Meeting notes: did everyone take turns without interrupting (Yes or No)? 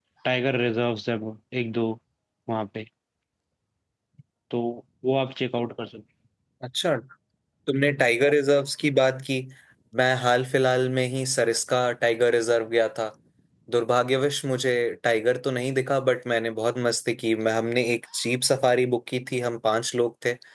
Yes